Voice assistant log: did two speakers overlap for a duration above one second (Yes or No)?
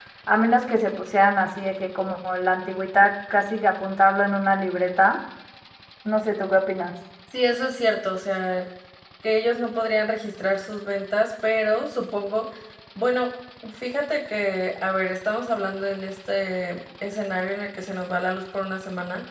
No